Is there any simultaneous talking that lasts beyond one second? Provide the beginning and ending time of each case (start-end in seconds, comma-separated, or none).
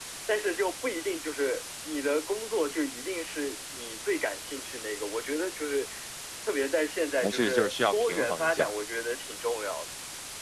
7.2-8.7